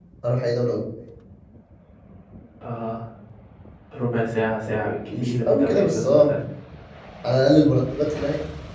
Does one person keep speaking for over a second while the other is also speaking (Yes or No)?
Yes